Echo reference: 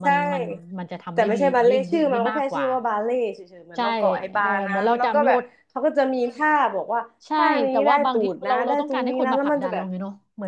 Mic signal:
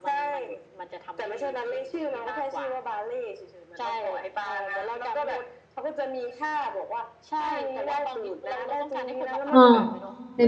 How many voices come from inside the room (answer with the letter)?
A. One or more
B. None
A